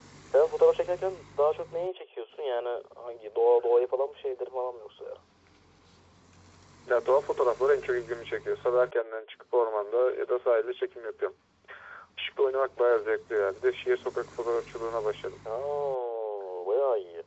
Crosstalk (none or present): none